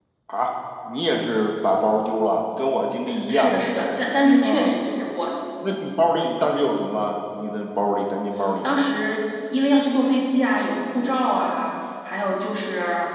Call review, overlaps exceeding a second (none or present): none